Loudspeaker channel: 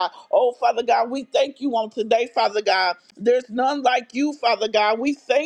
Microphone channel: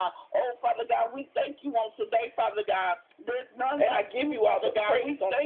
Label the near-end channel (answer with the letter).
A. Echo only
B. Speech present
B